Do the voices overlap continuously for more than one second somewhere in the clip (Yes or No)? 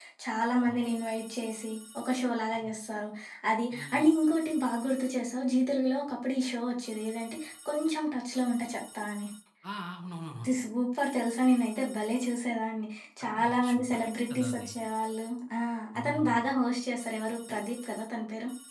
Yes